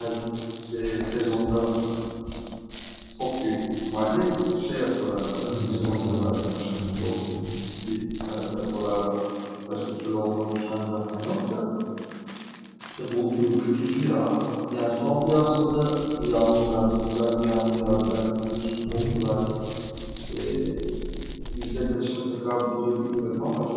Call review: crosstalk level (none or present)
present